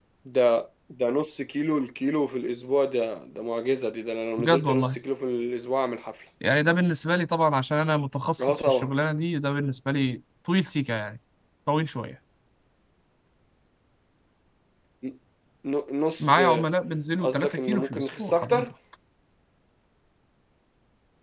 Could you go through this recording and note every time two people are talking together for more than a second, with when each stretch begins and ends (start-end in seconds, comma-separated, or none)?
17.2-18.7